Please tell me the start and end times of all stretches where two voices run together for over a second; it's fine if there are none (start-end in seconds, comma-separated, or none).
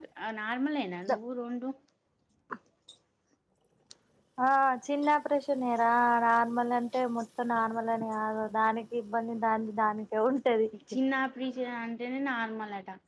none